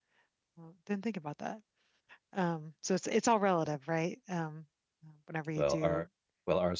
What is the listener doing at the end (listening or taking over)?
taking over